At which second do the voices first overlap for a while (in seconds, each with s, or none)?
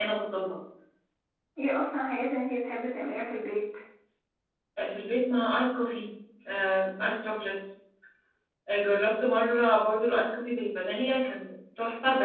none